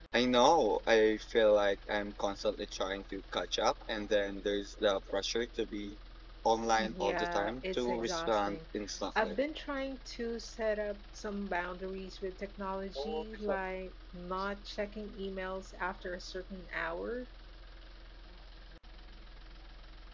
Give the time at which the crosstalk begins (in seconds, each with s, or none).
6.8 s